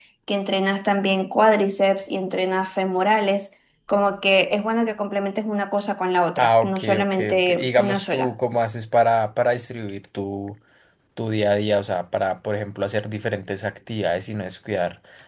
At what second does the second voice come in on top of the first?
6 s

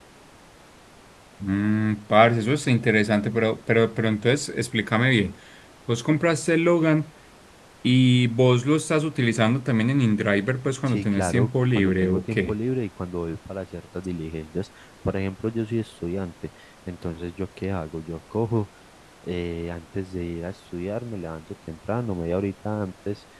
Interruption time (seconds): 11 s

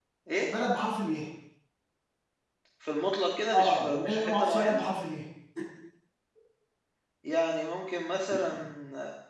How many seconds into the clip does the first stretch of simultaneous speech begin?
4 s

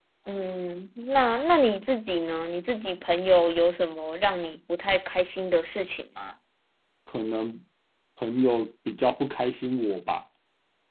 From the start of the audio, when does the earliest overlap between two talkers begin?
none

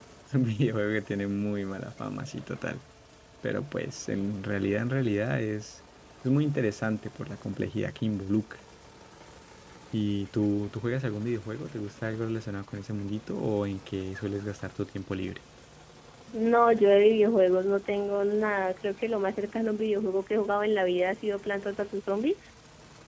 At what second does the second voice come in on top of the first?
none

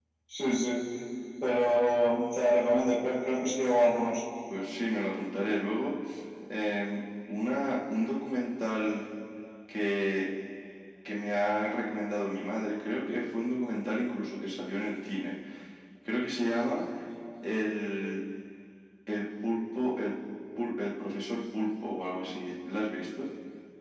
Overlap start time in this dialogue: none

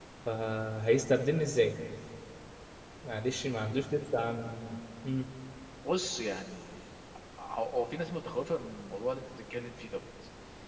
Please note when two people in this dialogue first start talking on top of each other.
none

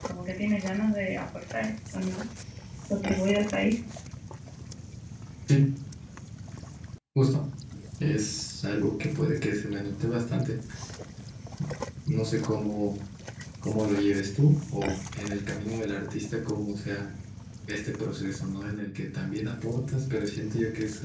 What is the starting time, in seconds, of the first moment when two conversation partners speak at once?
none

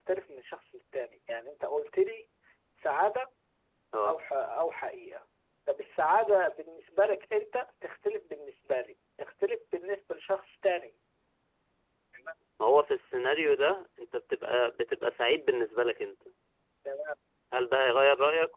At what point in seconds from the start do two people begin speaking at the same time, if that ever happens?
none

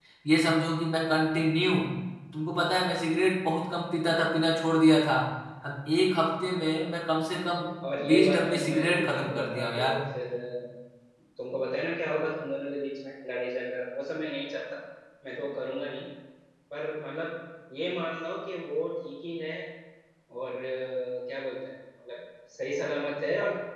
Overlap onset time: 8 s

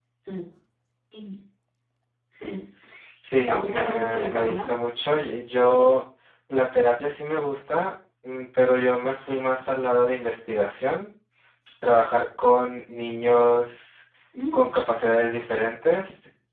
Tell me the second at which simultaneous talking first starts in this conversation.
3 s

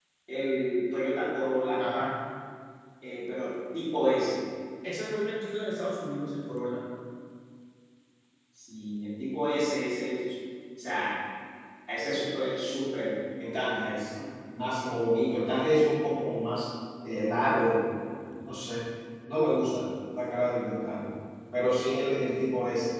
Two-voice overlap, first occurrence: none

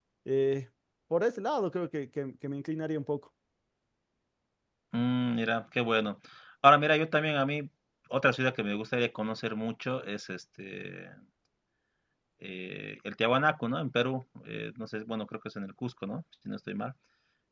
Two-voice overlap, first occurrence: none

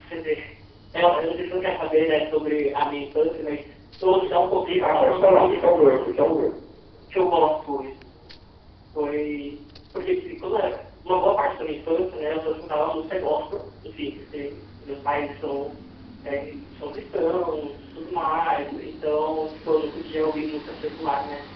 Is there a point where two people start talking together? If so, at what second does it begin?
5 s

